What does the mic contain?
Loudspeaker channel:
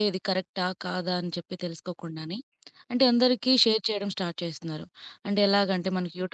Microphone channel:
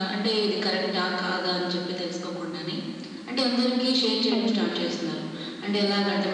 both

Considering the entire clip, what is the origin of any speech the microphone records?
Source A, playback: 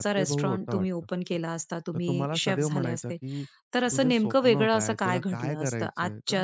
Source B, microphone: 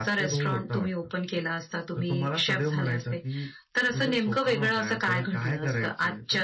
echo only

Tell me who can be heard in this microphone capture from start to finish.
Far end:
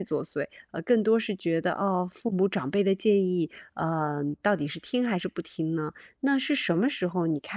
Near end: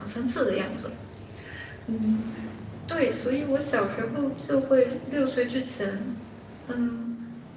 user only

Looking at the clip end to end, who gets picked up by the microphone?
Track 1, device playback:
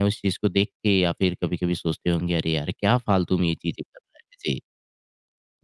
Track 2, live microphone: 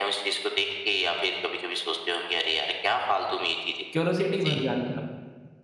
both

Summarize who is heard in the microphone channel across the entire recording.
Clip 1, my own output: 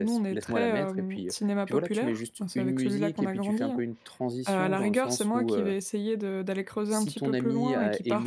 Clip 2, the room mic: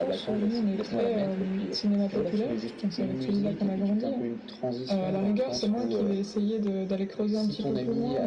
echo only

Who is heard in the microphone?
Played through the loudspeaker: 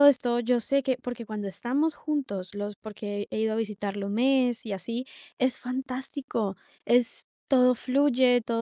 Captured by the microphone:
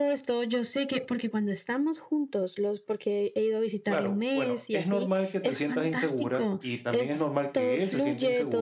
both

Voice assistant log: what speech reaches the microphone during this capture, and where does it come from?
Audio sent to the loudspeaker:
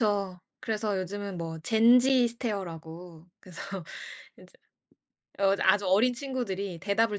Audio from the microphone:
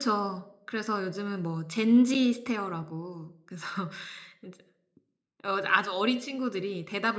echo only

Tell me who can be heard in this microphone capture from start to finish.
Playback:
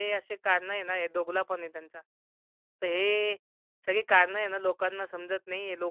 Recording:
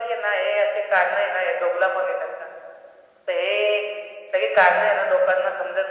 echo only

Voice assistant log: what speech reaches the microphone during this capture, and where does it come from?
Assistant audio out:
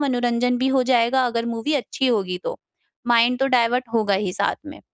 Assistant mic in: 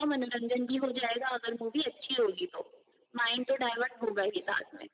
echo only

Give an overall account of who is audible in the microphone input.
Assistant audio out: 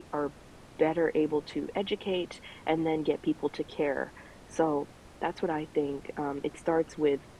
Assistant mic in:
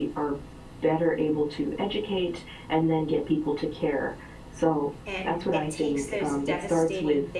both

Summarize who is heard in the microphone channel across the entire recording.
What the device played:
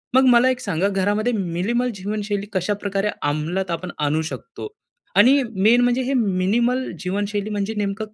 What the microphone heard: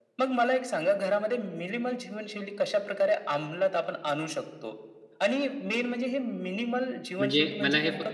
both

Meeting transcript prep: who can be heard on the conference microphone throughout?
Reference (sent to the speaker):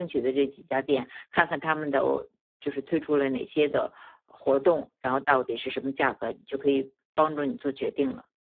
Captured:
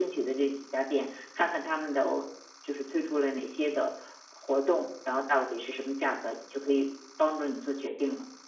echo only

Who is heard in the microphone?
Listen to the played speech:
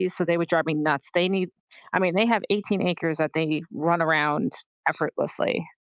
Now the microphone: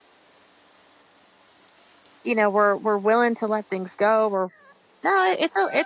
user only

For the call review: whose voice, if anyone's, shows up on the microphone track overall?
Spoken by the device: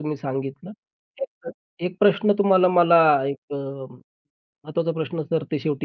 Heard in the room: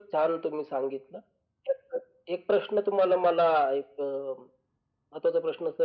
echo only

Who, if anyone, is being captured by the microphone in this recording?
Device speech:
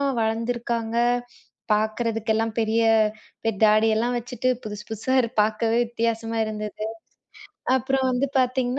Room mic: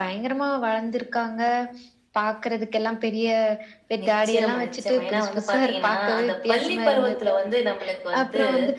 both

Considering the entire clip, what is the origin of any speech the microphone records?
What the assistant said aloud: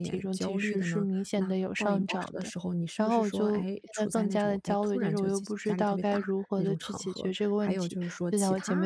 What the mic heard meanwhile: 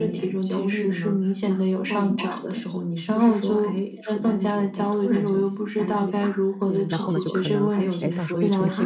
both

